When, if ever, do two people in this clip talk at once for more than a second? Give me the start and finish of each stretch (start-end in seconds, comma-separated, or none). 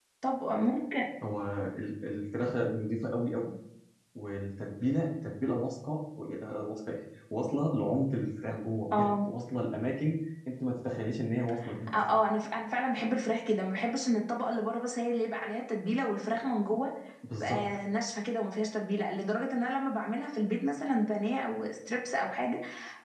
none